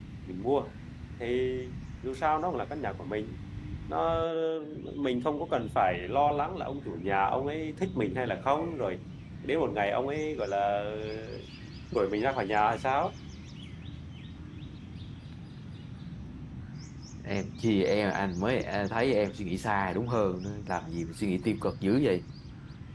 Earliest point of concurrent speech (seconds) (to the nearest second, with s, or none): none